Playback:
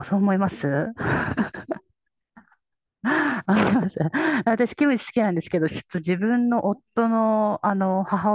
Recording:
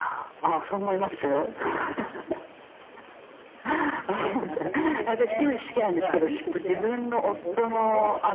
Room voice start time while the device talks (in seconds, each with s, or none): 4.4 s